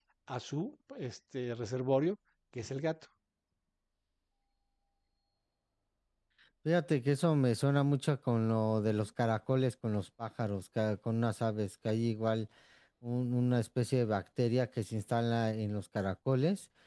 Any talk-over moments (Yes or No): No